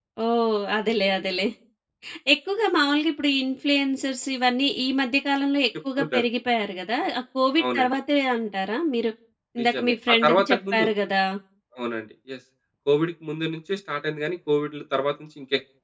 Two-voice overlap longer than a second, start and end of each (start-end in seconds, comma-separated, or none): 9.6-10.9